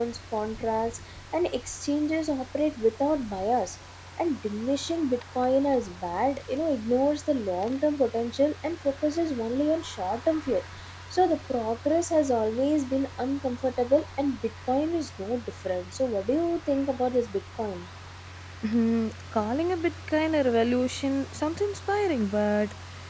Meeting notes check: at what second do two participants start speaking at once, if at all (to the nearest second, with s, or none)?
none